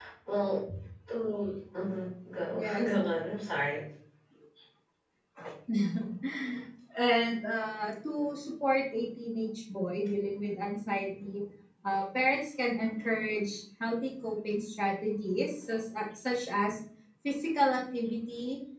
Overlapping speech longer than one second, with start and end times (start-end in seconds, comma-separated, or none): none